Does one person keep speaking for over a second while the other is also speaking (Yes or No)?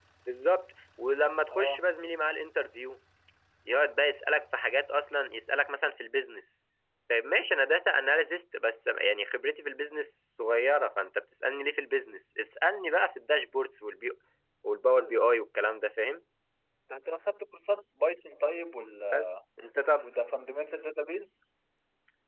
No